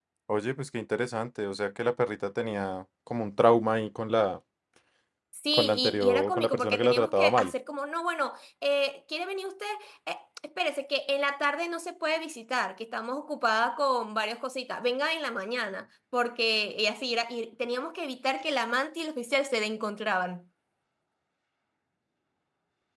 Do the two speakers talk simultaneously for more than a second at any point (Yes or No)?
Yes